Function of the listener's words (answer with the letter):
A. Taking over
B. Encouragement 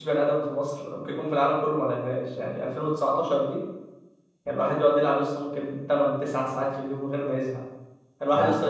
B